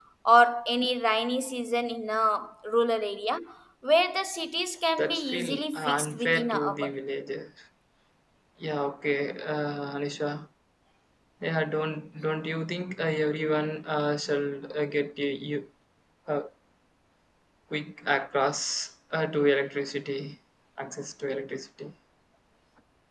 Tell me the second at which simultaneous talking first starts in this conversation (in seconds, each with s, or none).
5.0 s